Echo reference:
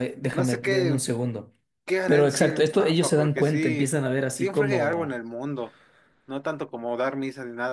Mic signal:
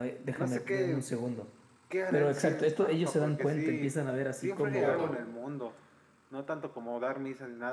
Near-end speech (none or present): present